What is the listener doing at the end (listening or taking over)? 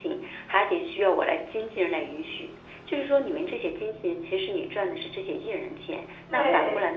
listening